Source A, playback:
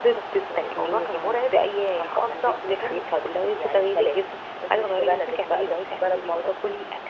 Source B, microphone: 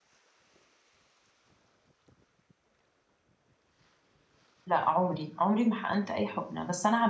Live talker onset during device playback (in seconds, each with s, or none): 4.7 s